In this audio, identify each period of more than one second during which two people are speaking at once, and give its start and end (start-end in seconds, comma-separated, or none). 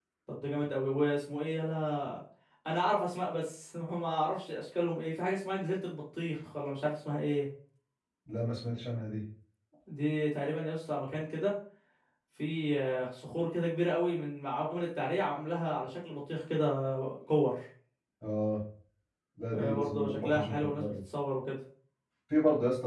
19.5-20.9